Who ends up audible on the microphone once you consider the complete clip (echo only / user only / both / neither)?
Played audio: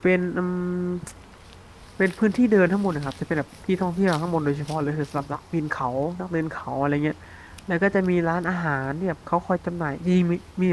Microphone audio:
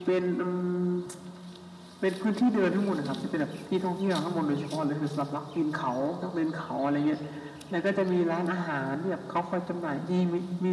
echo only